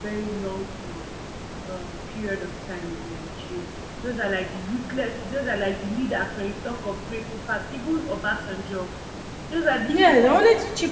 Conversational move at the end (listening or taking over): taking over